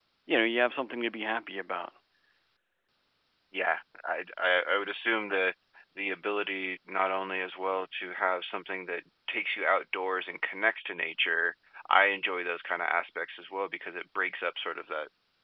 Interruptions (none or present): none